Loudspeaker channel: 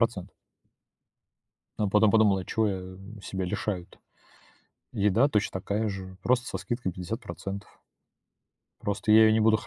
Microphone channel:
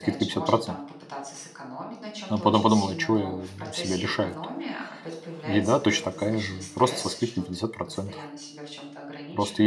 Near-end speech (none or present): present